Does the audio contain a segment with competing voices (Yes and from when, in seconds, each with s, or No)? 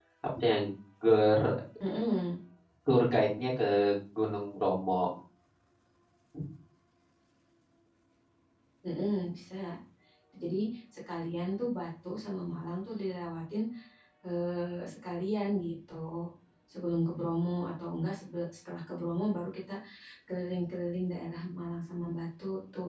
No